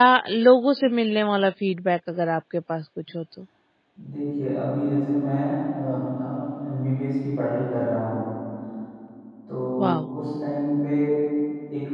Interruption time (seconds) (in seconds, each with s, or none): none